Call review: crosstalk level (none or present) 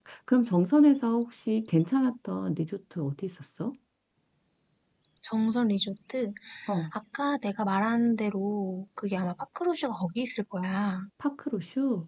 none